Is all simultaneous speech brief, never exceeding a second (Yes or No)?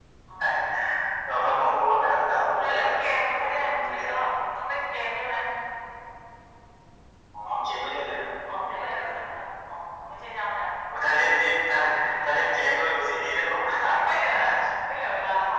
No